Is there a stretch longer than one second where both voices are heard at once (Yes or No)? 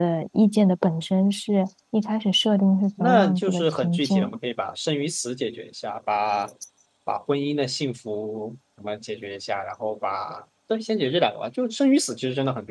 Yes